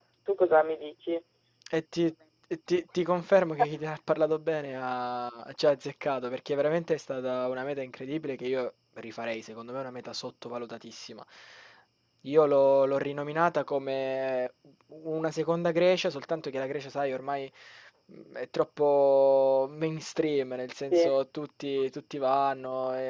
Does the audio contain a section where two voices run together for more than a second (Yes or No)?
No